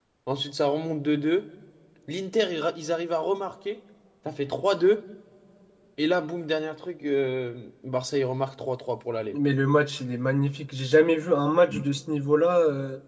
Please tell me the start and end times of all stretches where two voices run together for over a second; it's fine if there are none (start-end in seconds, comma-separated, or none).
none